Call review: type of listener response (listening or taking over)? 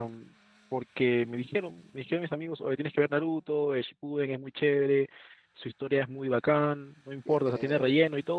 listening